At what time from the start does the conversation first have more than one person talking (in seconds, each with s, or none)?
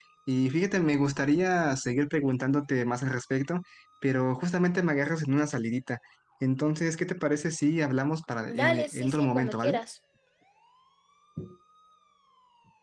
8.5 s